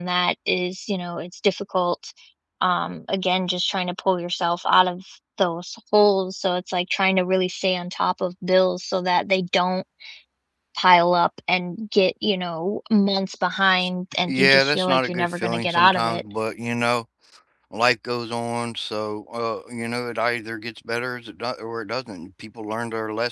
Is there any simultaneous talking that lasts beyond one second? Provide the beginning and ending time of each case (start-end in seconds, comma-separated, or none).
14.2-16.2